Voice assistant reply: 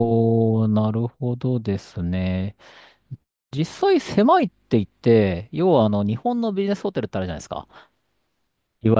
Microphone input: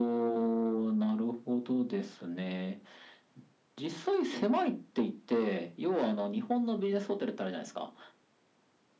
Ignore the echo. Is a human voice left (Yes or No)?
No